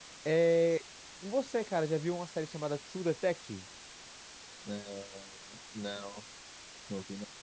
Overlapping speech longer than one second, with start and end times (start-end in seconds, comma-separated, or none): none